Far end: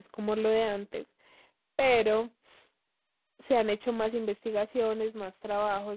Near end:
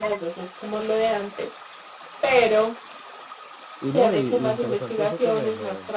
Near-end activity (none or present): present